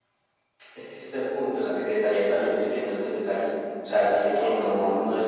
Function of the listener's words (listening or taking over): listening